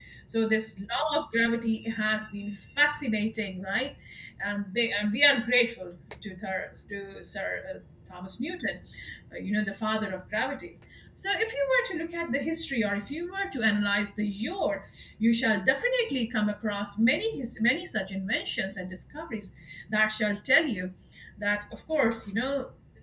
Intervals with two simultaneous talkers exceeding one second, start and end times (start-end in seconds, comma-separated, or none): none